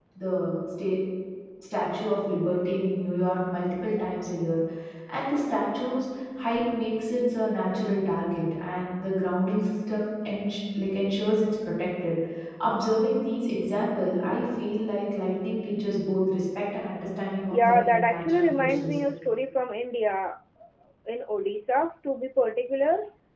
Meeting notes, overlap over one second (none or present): present